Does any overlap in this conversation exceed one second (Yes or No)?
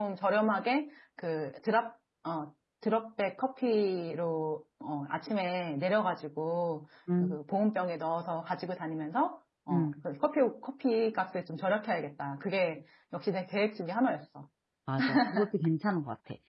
No